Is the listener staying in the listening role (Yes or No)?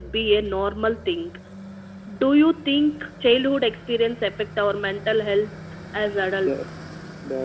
No